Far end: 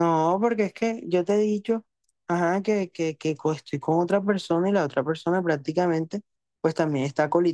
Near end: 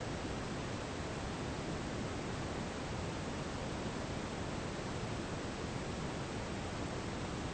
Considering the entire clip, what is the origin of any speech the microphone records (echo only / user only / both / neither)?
neither